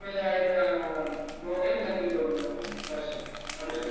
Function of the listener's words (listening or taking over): taking over